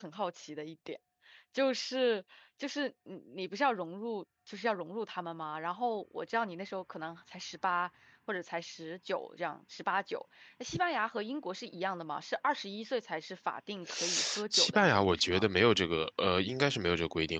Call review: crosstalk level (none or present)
present